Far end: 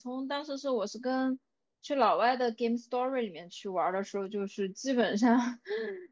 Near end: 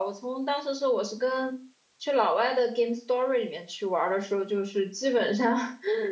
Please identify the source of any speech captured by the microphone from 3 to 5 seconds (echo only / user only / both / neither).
echo only